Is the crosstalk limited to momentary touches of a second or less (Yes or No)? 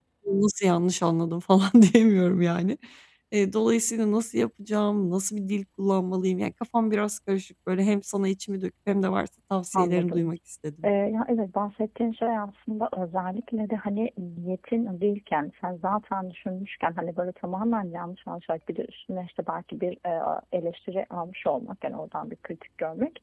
Yes